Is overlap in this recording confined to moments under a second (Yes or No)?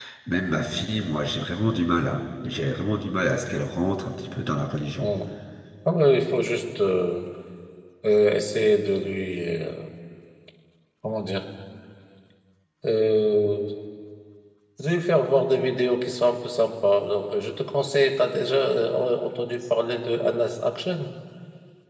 Yes